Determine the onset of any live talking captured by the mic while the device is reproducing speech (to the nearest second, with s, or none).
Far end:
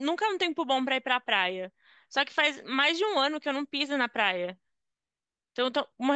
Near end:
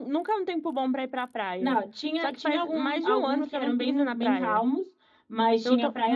2 s